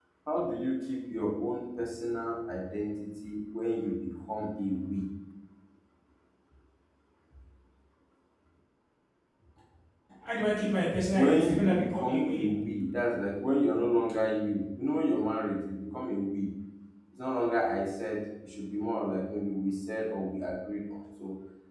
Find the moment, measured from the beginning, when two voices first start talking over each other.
11.1 s

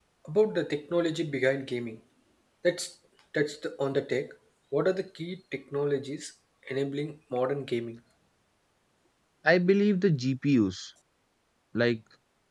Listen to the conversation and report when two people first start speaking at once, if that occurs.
none

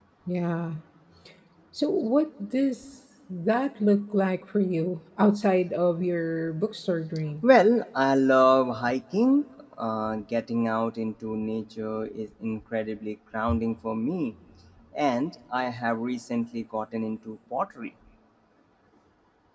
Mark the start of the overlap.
none

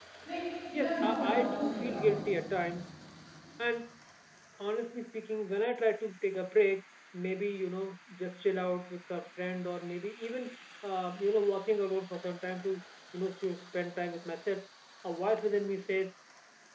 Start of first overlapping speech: 0.7 s

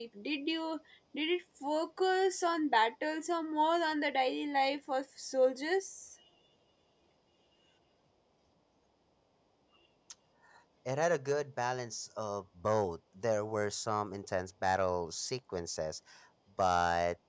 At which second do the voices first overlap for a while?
none

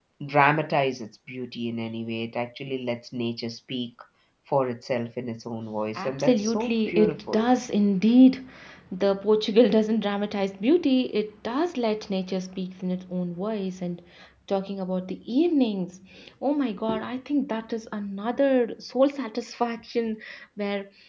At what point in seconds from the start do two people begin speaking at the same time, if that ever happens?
6.0 s

